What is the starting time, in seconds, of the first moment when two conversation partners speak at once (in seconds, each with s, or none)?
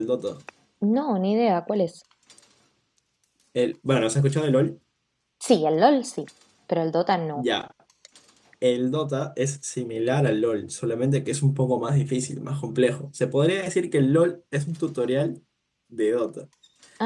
none